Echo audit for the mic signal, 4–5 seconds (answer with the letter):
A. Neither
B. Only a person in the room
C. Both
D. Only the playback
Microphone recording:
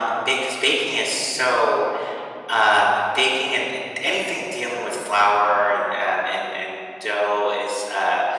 D